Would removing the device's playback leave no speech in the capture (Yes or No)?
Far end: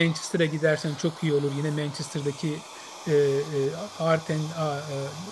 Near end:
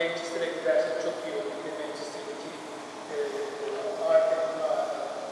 Yes